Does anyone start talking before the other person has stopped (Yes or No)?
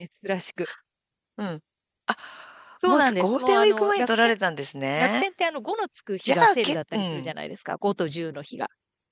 Yes